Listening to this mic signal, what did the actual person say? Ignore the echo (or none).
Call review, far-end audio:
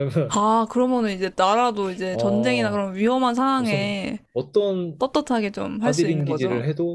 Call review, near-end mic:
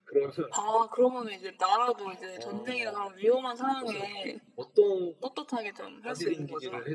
none